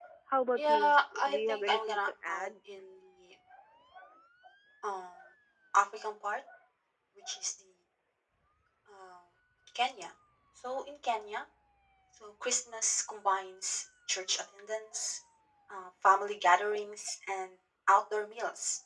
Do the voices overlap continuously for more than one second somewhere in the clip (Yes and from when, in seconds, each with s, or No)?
Yes, from 0.6 s